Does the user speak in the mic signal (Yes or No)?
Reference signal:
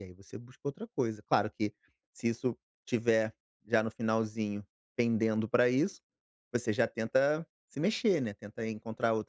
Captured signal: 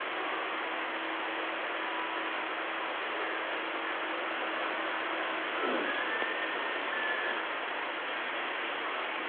No